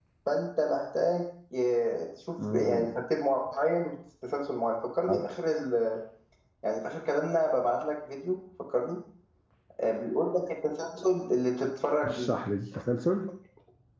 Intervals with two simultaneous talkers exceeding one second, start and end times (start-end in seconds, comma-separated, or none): none